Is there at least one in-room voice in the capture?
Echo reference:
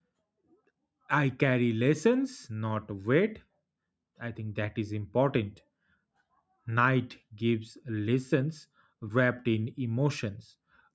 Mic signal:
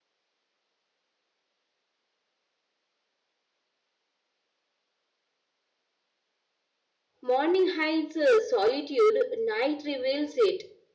Yes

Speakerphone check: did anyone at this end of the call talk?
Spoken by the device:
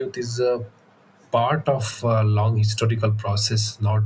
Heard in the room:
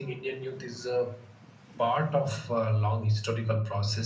No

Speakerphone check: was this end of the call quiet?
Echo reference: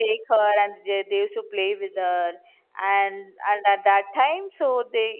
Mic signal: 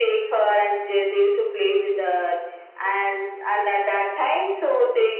Yes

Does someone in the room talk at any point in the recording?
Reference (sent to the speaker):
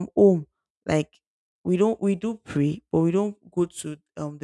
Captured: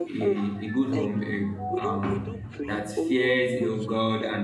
Yes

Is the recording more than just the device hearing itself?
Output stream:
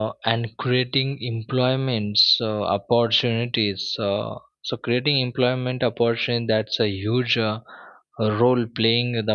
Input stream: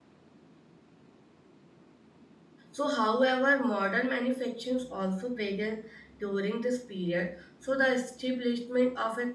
Yes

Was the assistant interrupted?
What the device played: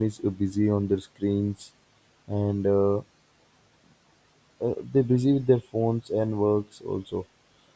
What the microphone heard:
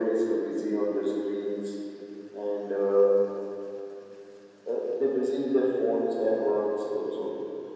No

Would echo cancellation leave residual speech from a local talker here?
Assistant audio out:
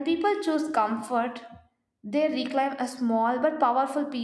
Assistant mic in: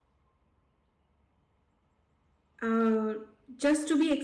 Yes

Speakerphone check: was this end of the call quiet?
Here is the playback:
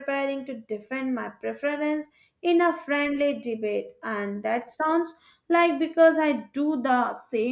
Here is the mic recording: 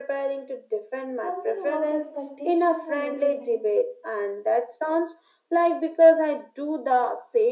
No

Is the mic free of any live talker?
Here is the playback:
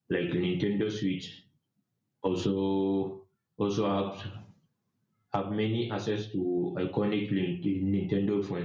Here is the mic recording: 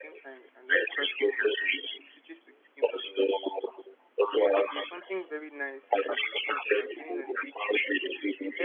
No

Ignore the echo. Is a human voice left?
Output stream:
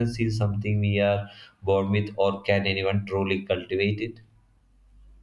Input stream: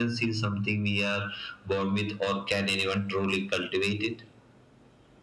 No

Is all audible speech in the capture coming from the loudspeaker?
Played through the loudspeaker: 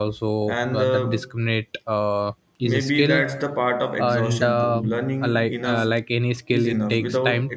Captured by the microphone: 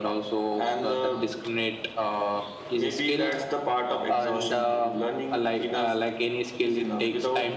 Yes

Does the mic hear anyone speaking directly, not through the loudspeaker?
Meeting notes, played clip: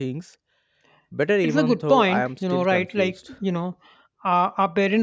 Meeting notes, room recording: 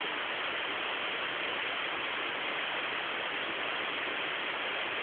No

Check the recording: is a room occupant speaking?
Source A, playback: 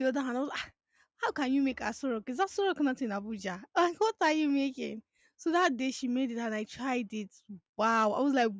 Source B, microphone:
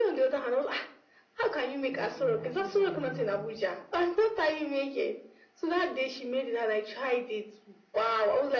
Yes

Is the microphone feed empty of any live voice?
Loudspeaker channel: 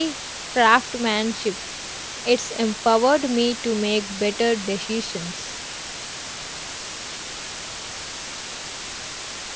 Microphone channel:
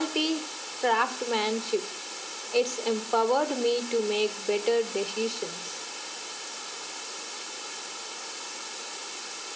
Yes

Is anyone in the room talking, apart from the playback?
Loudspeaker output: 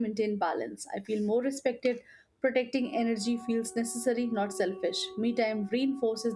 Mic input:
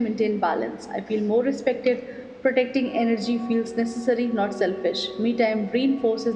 No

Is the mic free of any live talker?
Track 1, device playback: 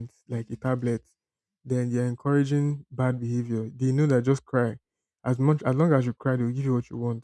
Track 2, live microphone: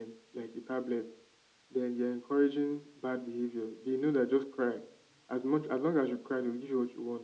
Yes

